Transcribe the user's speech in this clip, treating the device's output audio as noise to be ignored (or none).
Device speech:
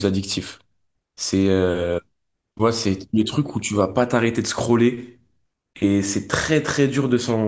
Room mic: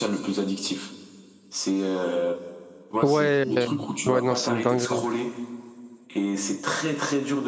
Ouais, euh, ouais, non, c'est une dinguerie.